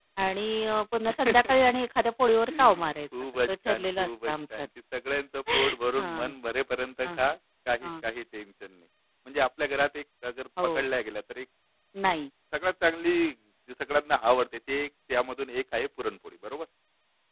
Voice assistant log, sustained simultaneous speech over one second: present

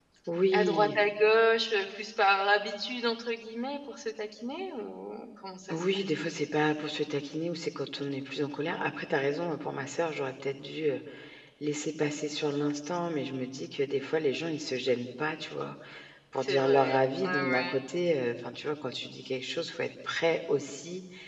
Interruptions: present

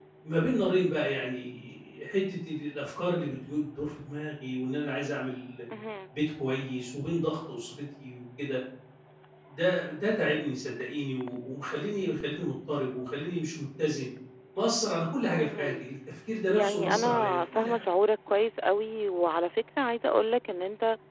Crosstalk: present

